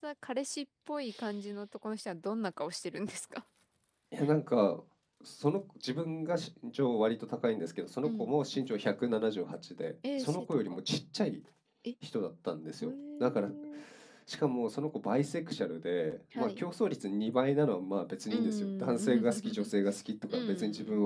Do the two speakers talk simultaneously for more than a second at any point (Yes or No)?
Yes